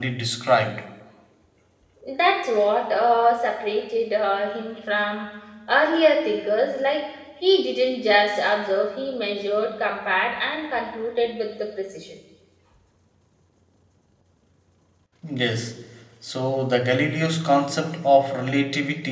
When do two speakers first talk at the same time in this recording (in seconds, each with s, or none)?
none